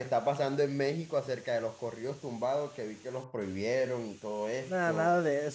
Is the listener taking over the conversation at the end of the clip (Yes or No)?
Yes